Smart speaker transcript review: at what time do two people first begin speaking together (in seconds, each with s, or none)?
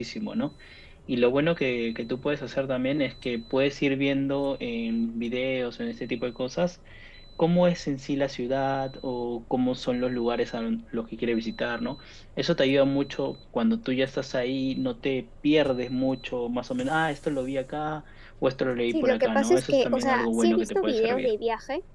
18.9 s